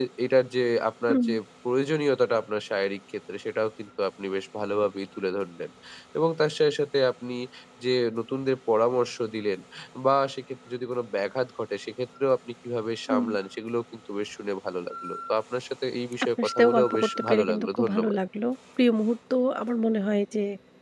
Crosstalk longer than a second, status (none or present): present